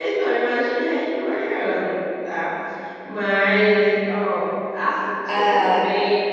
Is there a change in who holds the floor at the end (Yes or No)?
No